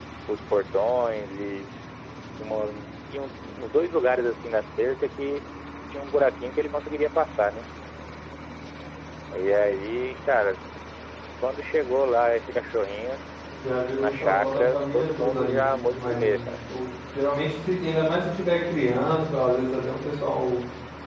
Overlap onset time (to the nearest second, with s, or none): 14 s